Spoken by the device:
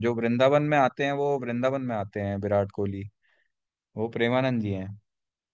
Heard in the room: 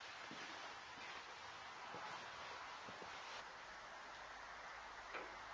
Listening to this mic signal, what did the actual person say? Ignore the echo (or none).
none